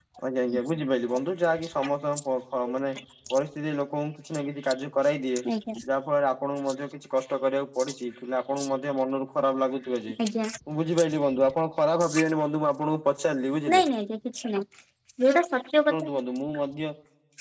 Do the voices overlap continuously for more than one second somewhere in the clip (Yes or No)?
No